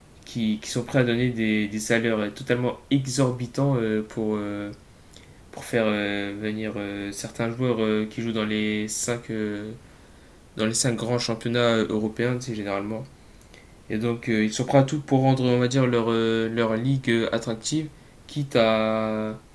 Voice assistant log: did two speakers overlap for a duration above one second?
No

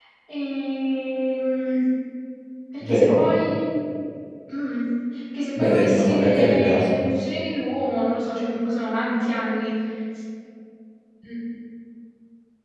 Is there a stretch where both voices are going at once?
Yes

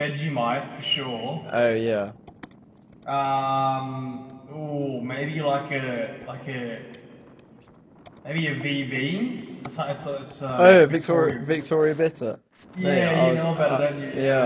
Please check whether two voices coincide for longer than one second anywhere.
Yes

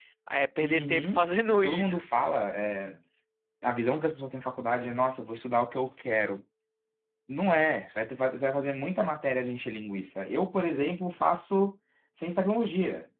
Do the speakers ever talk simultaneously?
Yes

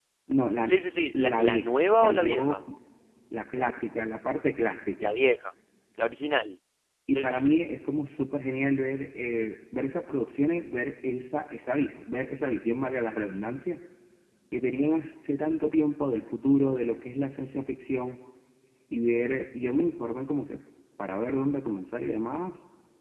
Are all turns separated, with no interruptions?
No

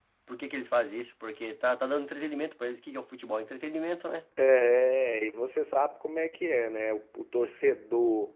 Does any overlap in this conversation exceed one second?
No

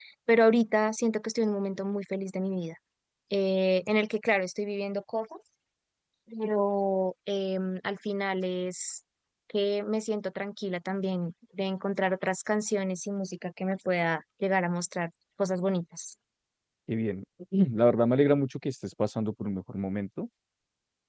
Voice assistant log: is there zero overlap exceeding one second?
Yes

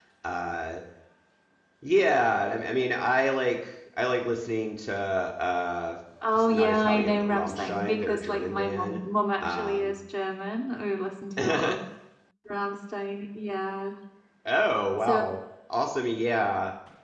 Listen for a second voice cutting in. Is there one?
Yes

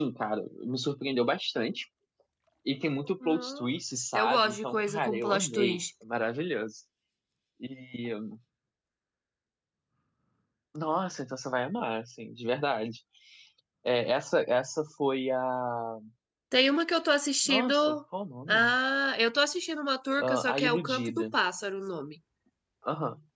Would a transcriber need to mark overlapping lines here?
Yes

